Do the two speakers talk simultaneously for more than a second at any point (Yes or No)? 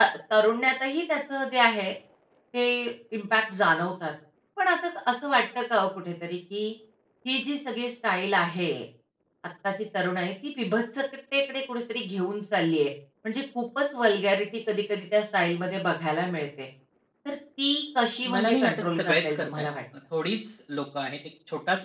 Yes